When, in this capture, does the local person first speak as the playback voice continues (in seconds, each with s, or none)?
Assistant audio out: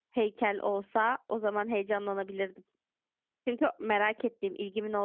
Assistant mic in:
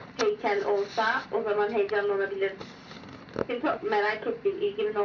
none